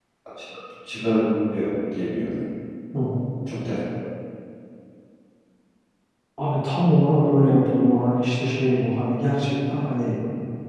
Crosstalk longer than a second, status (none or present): none